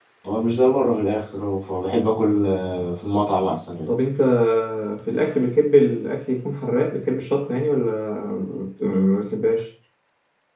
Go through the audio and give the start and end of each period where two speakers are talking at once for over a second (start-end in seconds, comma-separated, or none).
none